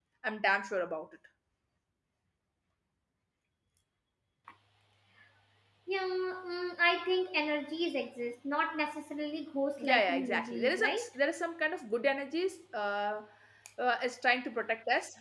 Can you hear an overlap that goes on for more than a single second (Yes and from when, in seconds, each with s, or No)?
Yes, from 9.8 s